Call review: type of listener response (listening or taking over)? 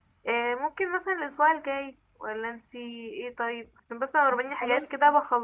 listening